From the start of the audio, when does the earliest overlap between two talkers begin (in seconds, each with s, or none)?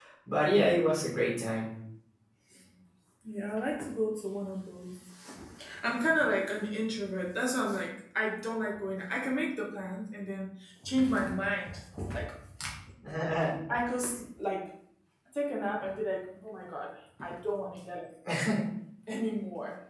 none